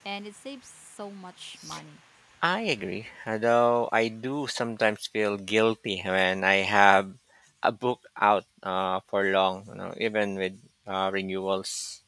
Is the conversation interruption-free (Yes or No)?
Yes